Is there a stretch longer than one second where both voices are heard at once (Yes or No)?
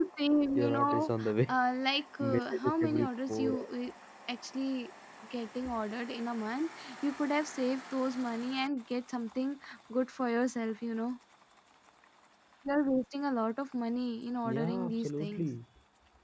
Yes